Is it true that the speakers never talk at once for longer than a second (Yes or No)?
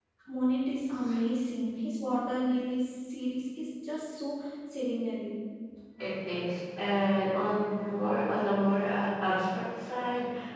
Yes